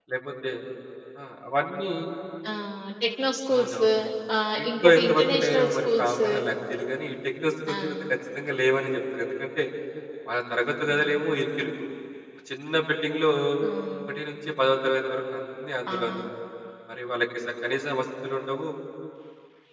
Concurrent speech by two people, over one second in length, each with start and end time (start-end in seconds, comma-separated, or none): 4.6-6.3